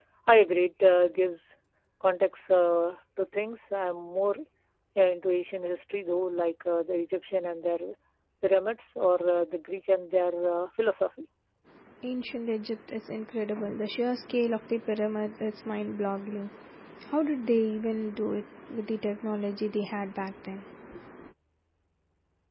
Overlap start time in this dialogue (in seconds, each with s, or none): none